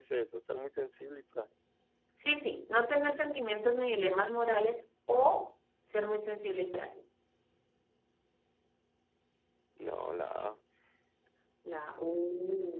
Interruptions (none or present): none